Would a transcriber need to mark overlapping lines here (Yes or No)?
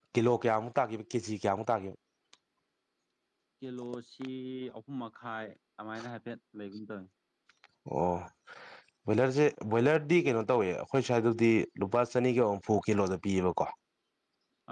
No